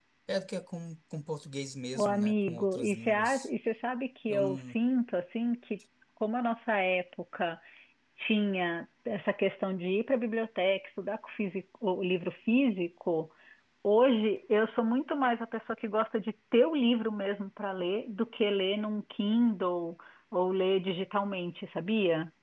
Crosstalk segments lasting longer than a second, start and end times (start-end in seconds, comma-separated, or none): 1.9-3.5